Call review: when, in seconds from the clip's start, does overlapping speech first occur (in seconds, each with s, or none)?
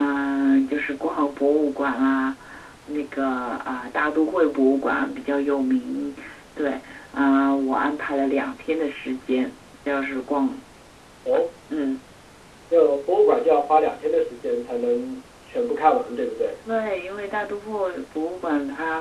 none